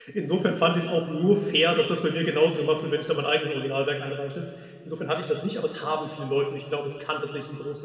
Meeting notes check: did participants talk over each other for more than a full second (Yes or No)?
No